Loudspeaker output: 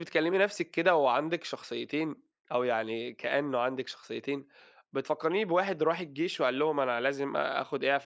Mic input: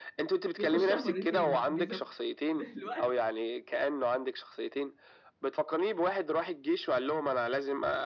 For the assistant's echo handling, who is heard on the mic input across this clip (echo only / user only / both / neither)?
both